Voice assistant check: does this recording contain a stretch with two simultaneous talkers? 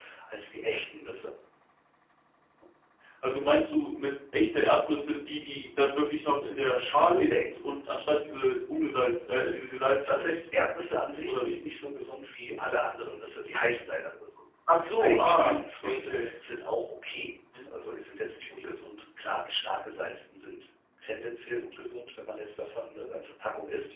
Yes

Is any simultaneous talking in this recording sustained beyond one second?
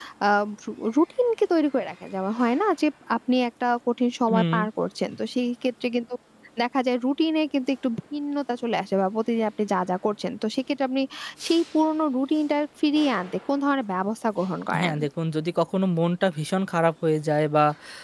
No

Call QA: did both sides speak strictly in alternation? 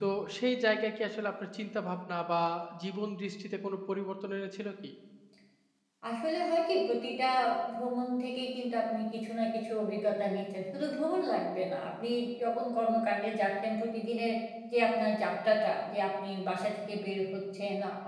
Yes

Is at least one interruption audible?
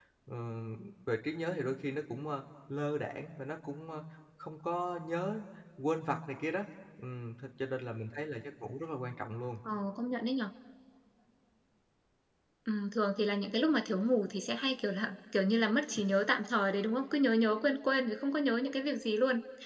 No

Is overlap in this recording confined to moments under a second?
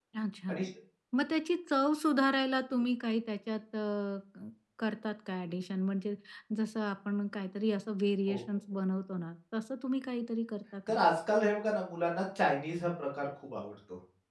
Yes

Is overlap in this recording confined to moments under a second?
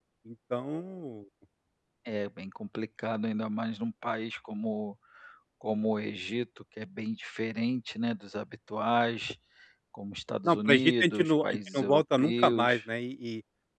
No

